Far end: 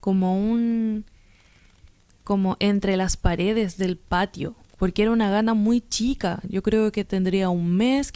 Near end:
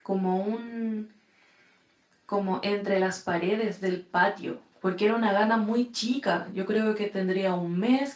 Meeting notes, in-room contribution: none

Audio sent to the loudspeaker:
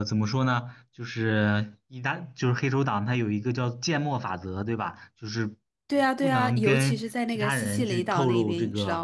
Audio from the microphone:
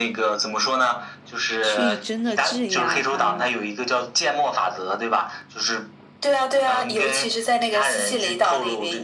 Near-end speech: present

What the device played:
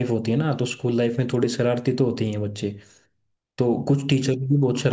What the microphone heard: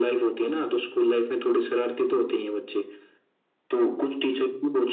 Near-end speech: none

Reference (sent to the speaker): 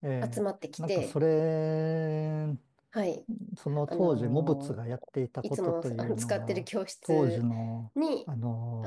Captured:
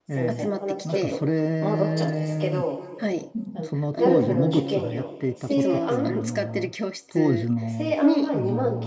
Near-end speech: present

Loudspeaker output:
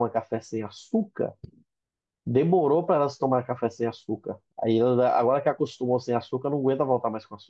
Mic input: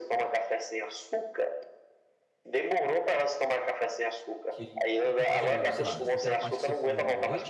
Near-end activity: present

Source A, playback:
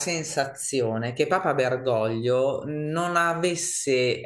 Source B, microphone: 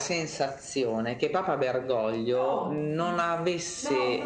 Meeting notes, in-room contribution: present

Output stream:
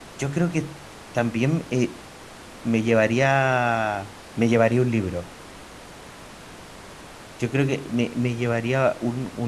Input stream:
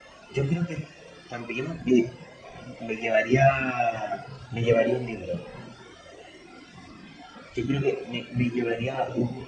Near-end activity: none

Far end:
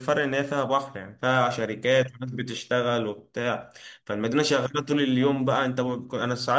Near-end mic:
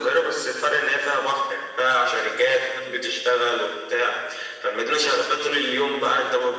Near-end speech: none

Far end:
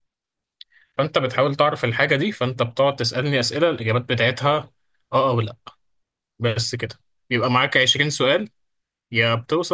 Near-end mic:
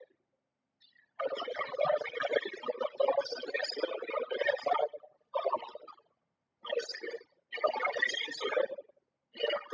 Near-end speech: none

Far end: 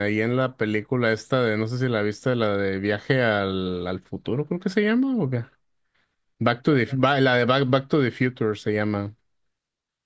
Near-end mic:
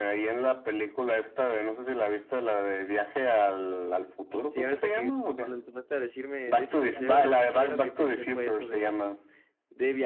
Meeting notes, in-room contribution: present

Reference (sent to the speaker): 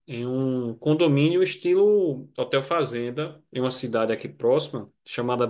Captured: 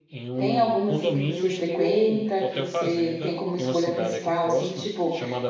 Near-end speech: present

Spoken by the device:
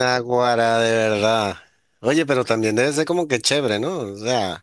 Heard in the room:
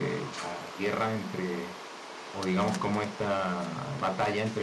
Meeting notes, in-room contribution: present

